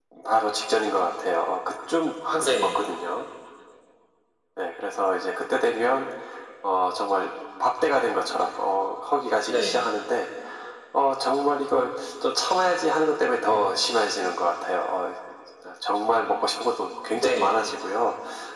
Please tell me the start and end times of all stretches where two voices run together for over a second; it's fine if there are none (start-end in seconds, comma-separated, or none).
none